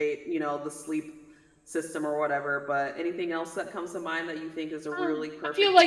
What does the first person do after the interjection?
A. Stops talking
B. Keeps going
A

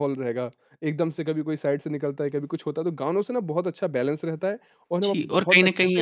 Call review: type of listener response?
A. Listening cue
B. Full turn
B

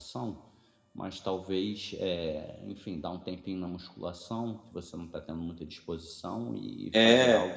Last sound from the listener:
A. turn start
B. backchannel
A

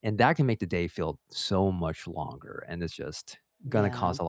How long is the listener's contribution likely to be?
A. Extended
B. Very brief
B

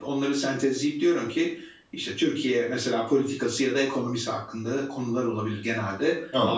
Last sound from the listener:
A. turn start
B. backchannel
B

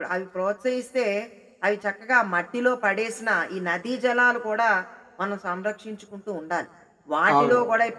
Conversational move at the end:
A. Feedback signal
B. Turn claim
A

